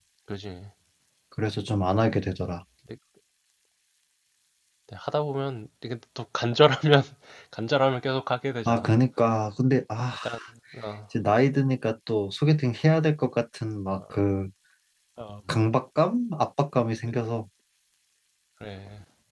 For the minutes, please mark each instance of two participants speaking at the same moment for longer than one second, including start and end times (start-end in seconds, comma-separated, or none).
none